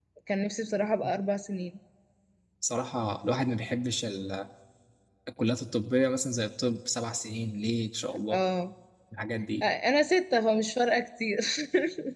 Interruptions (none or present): none